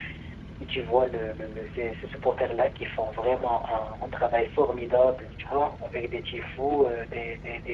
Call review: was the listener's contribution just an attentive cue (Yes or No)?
Yes